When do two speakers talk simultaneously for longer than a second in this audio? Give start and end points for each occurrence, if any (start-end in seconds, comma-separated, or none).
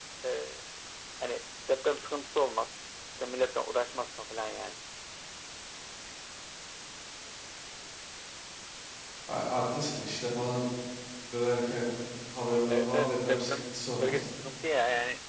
12.7-14.3